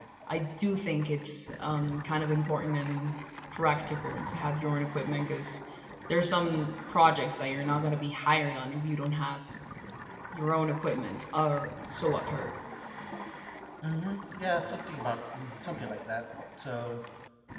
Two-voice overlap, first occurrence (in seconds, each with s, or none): none